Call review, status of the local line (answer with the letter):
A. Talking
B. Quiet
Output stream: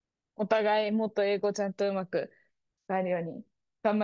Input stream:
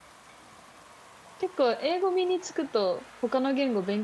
A